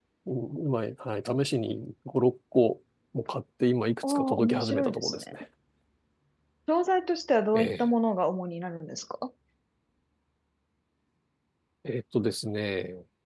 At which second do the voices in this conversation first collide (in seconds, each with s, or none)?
4.1 s